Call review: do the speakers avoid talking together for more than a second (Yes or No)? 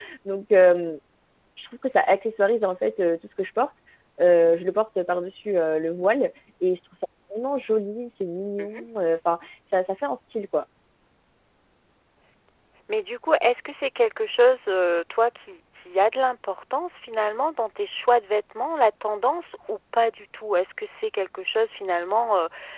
Yes